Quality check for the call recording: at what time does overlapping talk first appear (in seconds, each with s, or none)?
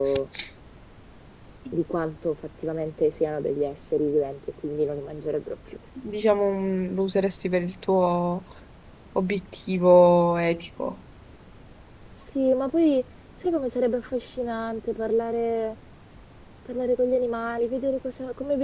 none